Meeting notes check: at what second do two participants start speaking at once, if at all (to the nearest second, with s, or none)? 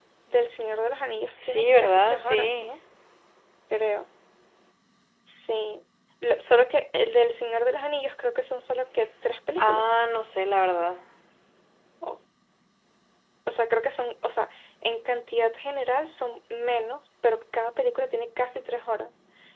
1 s